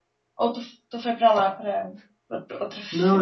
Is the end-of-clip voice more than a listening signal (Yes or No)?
Yes